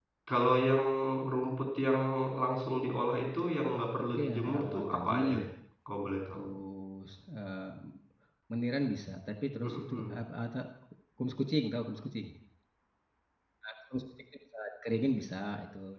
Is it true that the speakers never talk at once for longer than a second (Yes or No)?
No